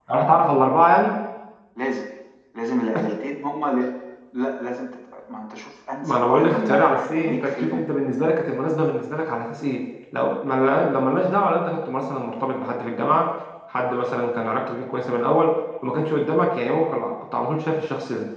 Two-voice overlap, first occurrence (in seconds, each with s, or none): 6.0 s